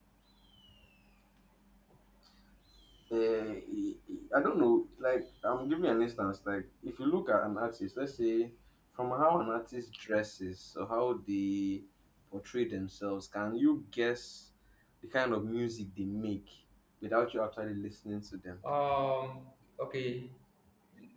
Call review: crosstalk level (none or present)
none